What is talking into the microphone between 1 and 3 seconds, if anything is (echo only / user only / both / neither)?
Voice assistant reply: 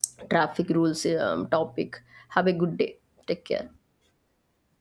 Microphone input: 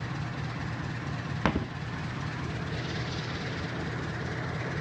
neither